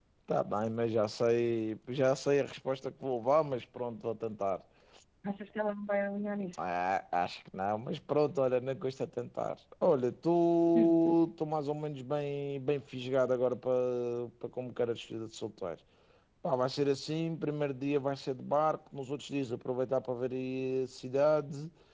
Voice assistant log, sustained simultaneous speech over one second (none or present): none